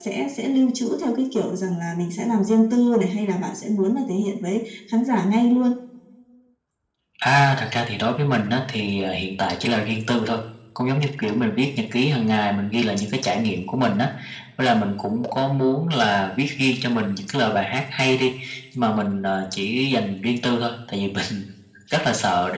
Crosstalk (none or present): none